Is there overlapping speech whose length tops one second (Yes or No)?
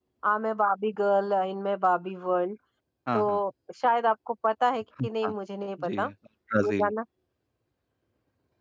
No